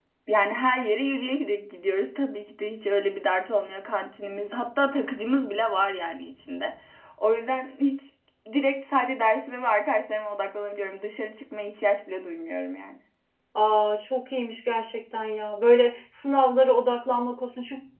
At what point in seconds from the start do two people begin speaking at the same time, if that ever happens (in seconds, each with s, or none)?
none